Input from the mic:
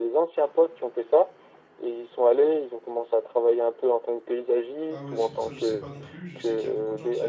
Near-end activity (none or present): present